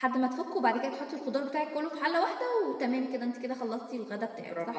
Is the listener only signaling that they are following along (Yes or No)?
No